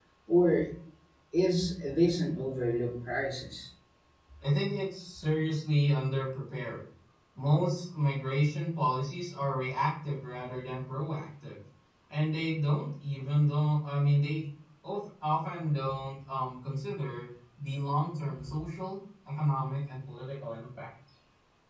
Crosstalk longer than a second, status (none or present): none